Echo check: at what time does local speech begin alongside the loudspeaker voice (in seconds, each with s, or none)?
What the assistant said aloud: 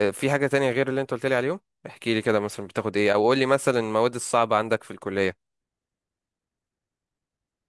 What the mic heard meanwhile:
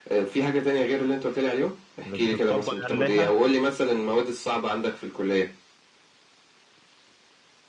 2.0 s